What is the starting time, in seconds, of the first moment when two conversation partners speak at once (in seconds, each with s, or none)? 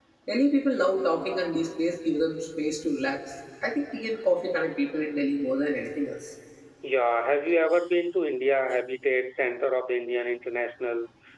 none